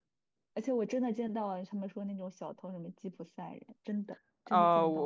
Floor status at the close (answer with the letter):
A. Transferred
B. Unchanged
A